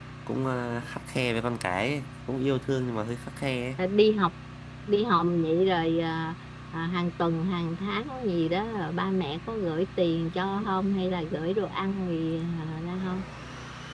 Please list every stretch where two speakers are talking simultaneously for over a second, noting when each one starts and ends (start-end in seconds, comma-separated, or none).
none